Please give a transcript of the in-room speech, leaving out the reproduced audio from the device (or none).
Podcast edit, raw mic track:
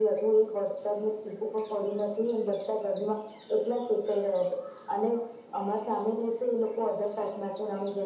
none